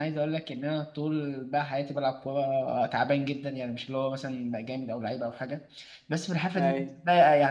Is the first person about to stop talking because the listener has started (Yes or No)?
No